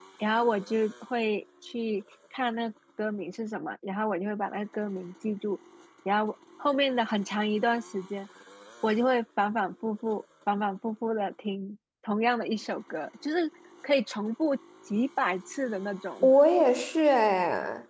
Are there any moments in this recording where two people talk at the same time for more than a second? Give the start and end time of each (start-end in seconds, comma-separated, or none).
none